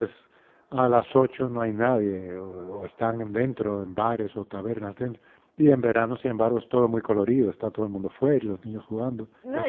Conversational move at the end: taking over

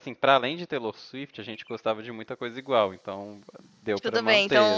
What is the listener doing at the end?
taking over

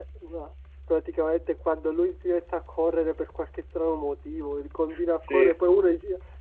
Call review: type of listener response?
listening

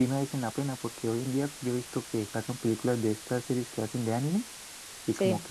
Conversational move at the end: listening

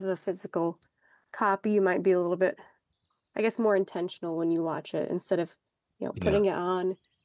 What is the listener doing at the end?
listening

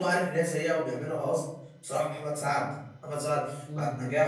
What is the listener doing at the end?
listening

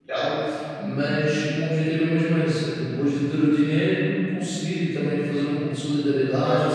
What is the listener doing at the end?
taking over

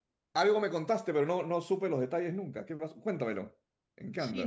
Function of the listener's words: taking over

